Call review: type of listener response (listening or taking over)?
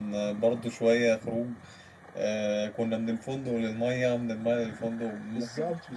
taking over